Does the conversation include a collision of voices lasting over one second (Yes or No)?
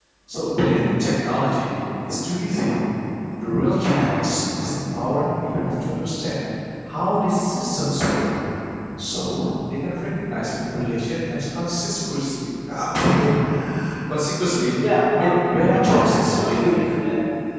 Yes